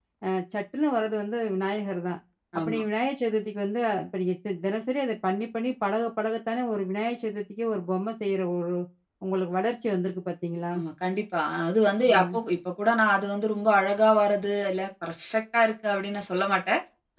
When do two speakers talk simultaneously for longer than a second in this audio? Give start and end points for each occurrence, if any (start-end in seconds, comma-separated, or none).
none